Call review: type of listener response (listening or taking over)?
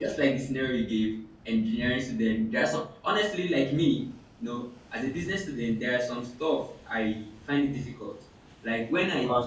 listening